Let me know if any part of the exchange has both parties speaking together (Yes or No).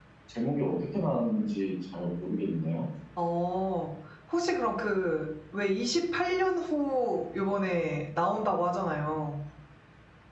No